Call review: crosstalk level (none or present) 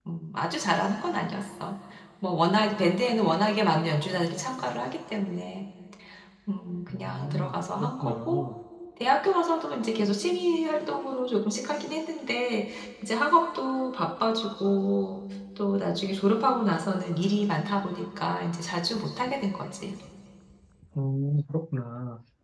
present